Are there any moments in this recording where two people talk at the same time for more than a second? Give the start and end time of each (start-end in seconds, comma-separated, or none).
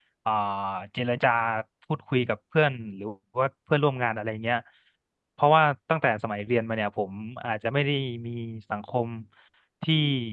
none